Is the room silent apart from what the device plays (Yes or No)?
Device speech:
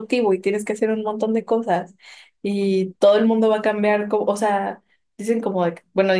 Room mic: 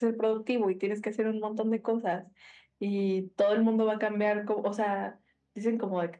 Yes